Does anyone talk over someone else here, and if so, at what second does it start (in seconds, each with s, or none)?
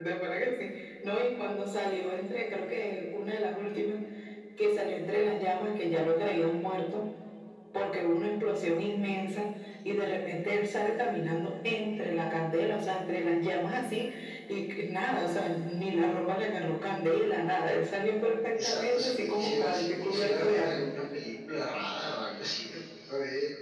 18.6 s